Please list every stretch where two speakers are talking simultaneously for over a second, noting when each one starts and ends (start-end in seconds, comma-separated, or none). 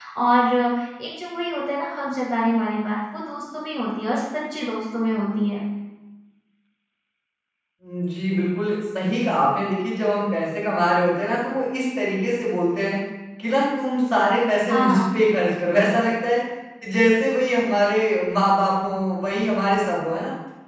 none